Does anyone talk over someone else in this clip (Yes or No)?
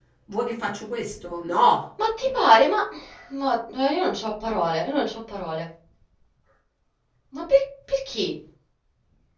No